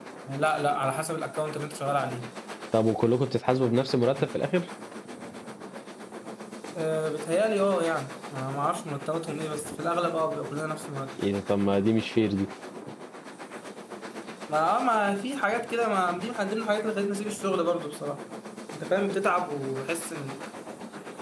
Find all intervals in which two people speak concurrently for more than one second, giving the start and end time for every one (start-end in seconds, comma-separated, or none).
none